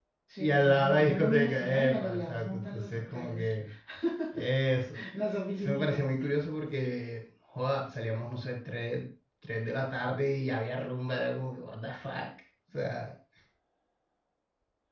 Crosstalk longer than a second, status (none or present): present